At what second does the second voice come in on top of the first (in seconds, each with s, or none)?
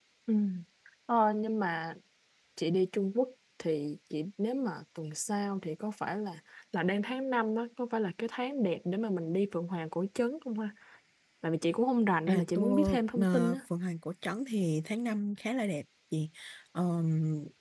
12.3 s